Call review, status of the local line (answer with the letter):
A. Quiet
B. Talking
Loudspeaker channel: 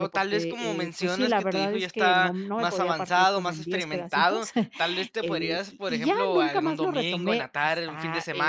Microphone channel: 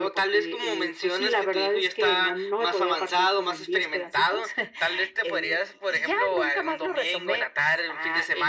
A